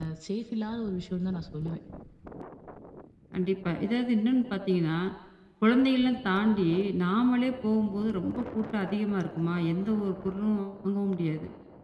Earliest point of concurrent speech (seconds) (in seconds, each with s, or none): none